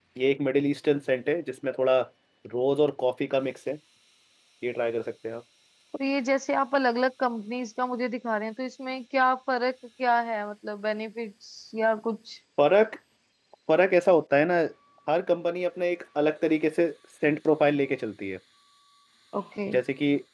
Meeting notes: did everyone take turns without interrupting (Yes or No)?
Yes